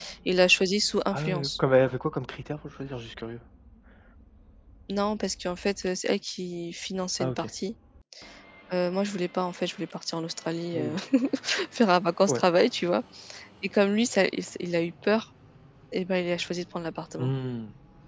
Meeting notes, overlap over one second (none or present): none